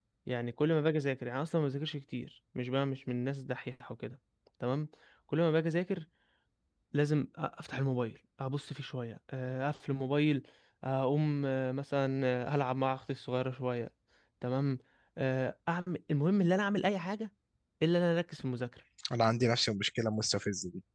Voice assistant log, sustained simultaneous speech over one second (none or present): none